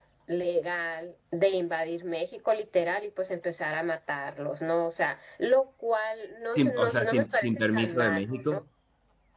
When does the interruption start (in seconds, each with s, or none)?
6.6 s